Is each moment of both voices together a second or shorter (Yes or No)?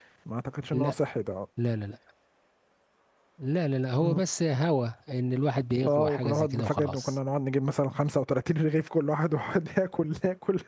No